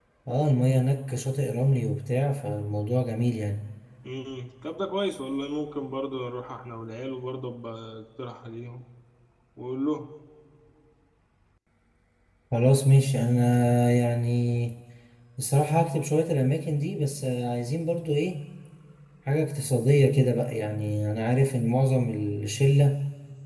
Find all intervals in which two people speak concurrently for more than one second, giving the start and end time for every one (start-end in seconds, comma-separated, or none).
none